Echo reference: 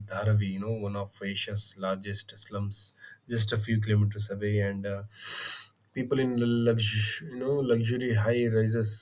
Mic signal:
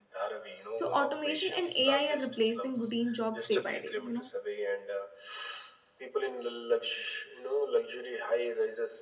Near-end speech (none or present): present